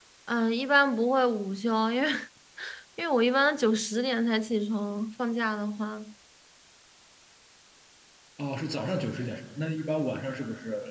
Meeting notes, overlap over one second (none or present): none